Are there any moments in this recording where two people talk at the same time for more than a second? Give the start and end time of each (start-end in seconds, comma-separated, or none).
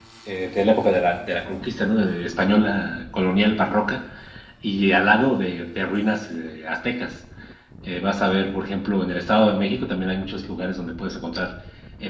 none